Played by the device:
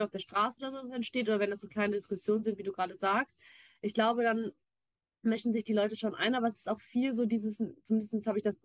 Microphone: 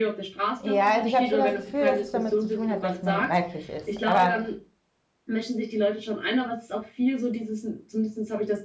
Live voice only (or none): Ja, also ich habe schon das Gefühl, dass es damit zu tun hat, dass man weiblich ist. Aber